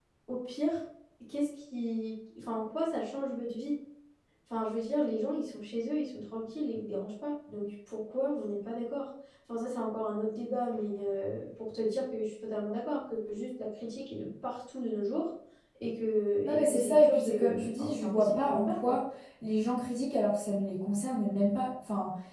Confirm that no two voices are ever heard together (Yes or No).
No